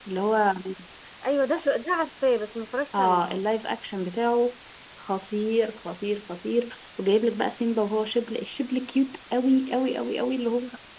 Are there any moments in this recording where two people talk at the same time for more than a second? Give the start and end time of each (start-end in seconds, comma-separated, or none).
none